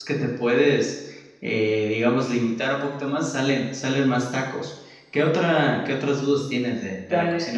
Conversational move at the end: taking over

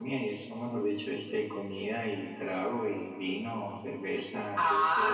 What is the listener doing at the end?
taking over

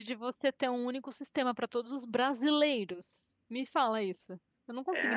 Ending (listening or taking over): taking over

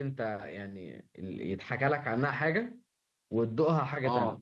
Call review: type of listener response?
taking over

